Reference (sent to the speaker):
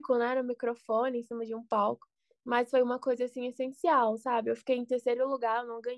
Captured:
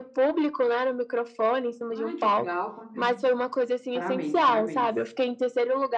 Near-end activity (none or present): present